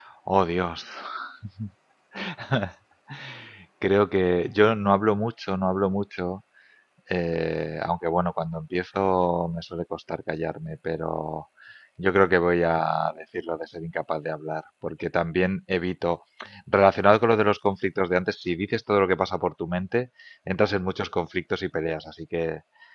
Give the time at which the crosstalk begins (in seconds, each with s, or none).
none